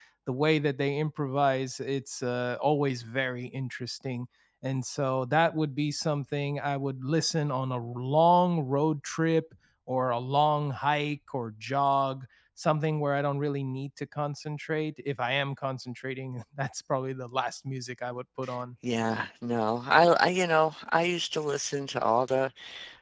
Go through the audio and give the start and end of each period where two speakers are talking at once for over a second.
none

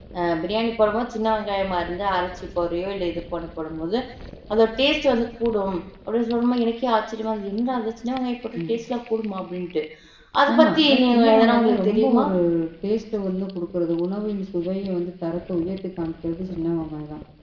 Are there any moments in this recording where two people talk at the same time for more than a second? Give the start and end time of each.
10.5-12.2

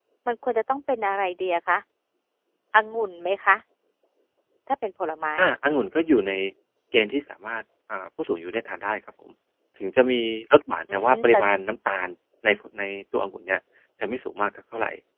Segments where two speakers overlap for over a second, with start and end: none

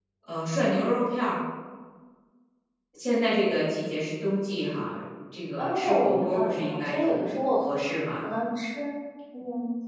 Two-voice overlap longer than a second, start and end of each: 5.6-7.2

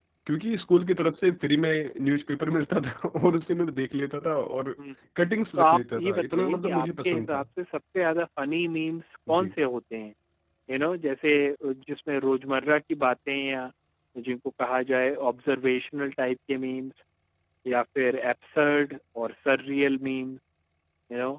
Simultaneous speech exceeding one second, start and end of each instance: 5.6-7.4

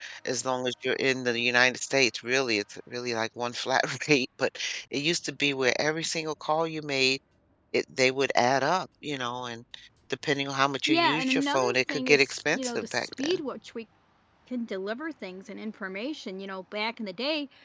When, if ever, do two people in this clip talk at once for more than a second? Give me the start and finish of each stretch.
10.9-13.4

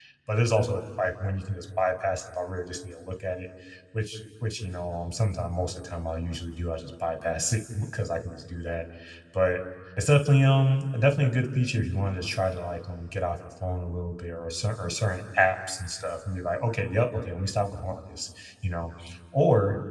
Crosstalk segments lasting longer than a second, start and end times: none

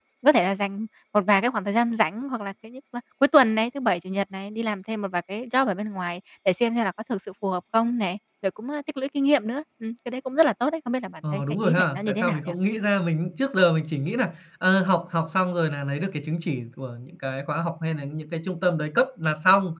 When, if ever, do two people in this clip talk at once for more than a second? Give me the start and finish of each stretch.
11.3-12.5

